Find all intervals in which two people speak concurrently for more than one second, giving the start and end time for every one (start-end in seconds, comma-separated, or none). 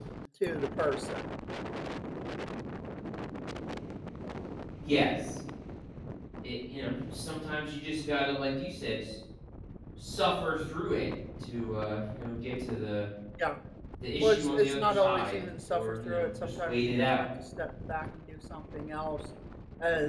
14.2-17.2